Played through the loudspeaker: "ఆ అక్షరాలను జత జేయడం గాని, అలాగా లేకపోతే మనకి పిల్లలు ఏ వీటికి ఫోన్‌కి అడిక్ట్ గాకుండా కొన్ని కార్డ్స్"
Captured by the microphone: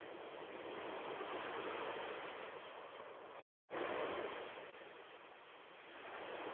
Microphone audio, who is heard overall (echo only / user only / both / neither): neither